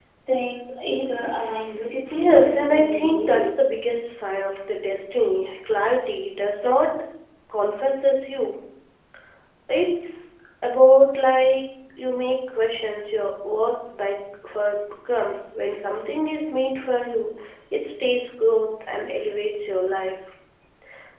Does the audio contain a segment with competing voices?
Yes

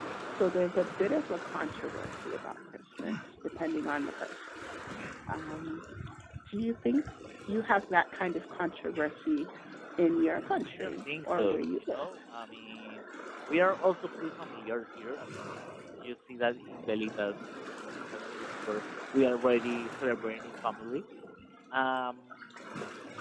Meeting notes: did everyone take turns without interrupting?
No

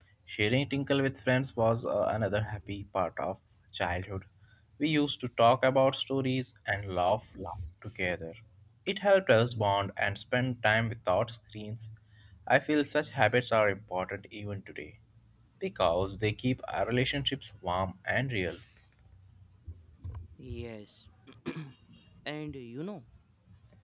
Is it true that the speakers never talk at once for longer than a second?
Yes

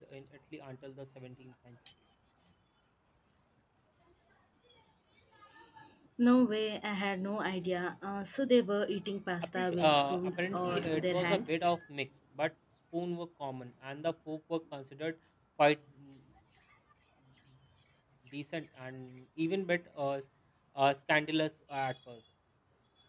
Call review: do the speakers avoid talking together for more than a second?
No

